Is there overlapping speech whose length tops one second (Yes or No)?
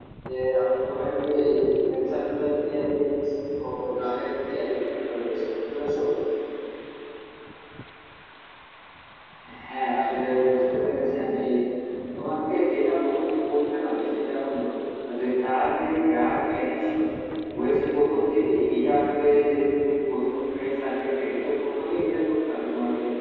No